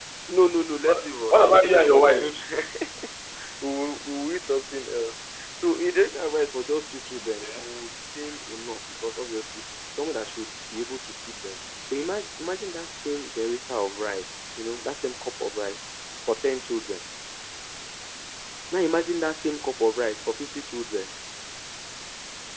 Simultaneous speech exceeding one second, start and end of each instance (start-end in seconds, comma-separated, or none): 0.9-2.2